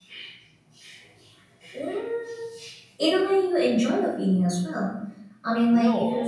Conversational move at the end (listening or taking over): listening